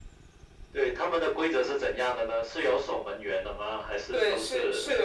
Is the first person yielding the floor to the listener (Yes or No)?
Yes